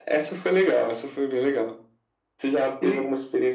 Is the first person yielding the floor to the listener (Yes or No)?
No